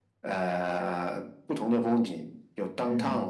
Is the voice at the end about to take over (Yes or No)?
Yes